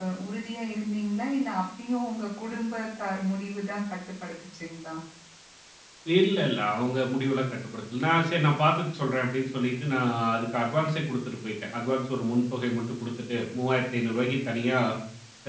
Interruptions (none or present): none